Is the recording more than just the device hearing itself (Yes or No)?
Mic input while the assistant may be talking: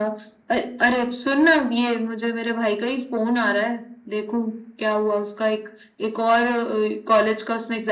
No